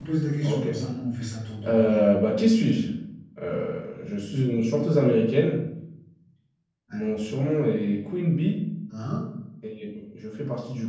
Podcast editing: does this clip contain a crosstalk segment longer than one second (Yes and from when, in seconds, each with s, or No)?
No